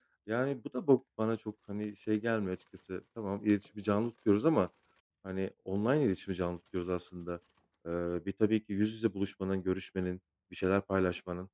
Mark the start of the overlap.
none

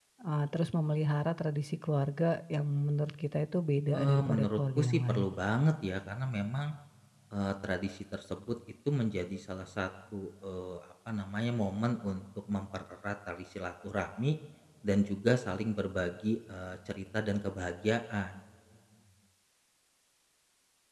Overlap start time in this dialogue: 3.9 s

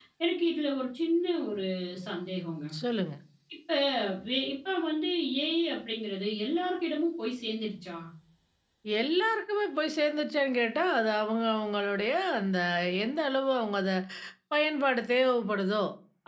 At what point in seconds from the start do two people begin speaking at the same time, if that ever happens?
none

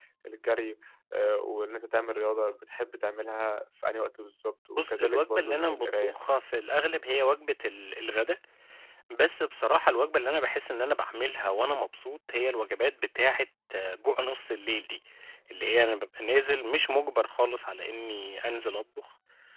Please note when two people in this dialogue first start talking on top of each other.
4.8 s

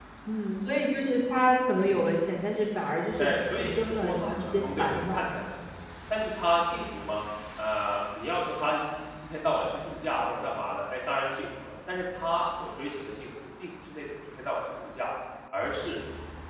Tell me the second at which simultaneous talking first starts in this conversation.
3.2 s

